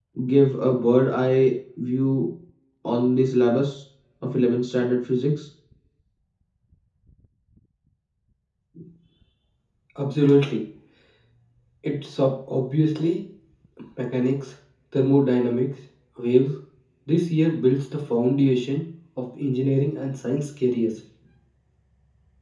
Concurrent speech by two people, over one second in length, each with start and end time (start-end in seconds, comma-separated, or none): none